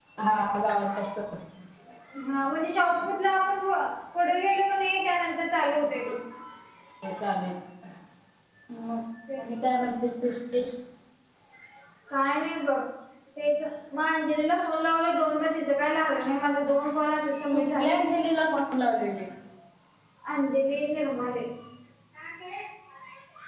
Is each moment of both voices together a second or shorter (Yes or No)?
Yes